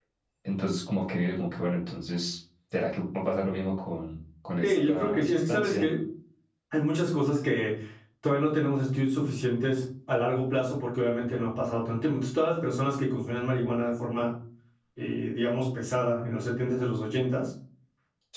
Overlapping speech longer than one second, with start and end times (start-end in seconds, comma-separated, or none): 4.6-5.8